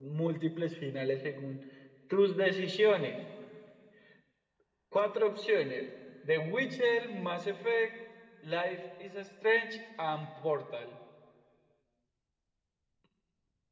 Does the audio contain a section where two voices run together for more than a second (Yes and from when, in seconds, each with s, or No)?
No